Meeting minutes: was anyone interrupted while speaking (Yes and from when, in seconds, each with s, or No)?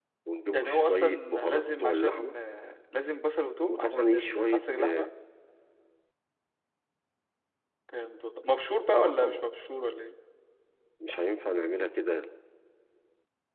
Yes, from 0.5 s